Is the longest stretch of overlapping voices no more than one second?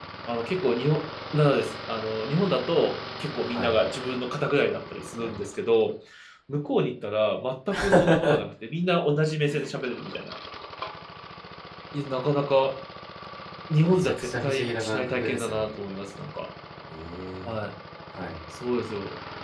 No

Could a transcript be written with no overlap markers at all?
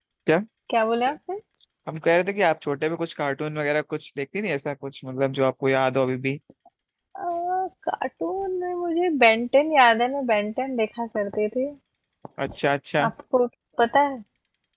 Yes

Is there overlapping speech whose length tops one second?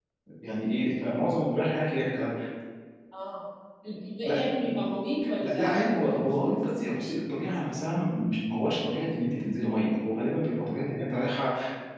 Yes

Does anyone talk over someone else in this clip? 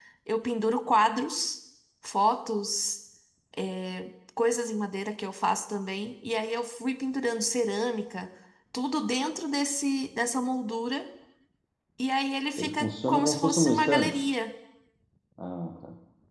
Yes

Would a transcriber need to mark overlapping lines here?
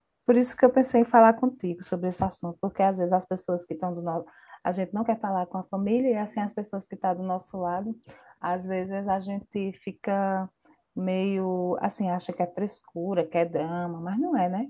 No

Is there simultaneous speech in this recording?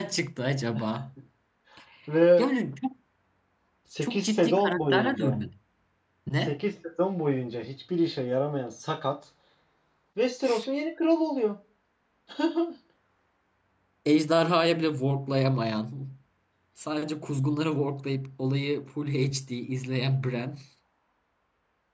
Yes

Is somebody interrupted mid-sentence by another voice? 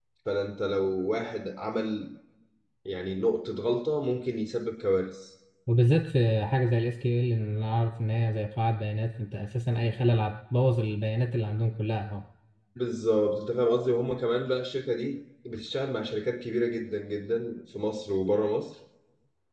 No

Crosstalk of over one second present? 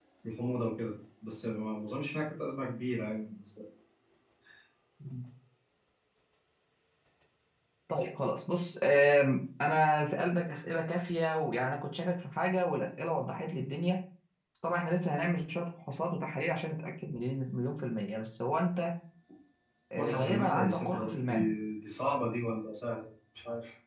Yes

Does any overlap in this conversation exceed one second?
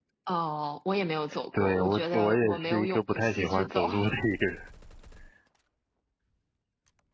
Yes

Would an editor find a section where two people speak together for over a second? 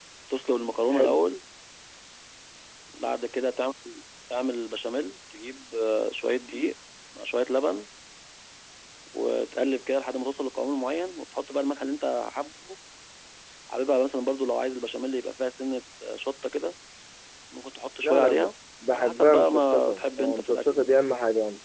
Yes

